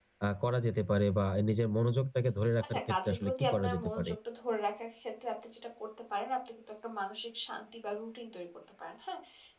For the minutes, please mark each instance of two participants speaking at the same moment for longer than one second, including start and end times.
2.6-4.1

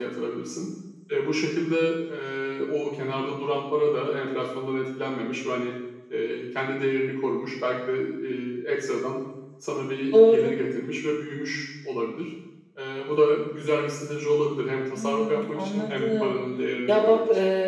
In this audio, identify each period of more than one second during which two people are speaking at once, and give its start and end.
14.9-16.4

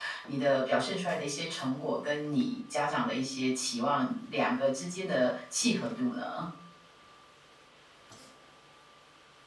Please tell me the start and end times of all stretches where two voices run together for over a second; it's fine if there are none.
none

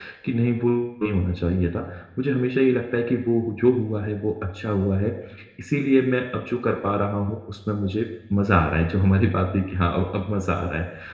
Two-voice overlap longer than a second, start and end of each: none

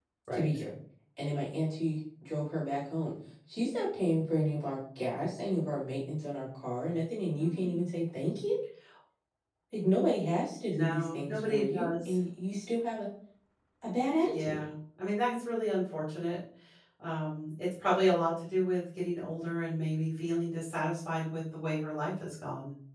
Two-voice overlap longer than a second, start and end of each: 10.7-12.1

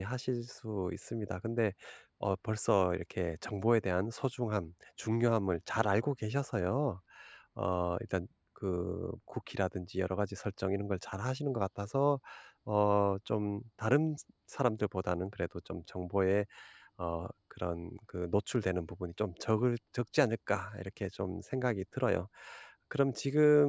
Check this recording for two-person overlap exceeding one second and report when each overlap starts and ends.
none

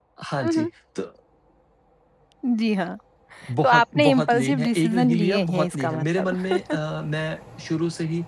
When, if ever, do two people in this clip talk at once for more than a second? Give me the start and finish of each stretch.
3.6-6.5

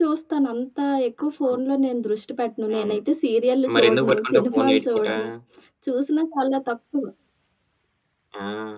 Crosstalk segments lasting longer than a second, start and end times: 3.7-5.0

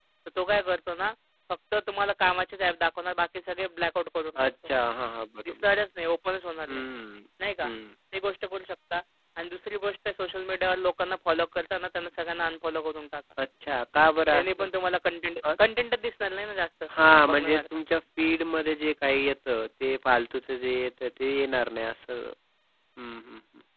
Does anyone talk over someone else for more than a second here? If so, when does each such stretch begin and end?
none

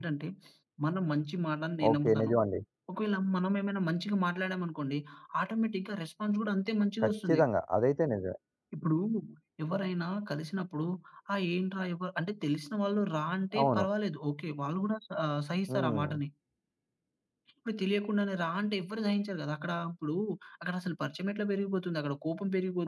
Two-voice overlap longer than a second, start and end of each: none

